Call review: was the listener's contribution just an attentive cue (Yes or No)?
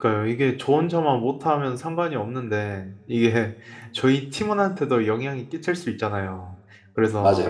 Yes